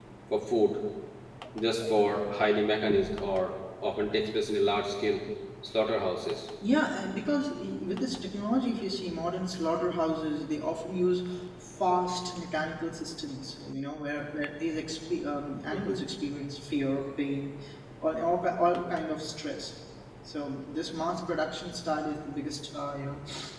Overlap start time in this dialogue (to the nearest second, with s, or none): none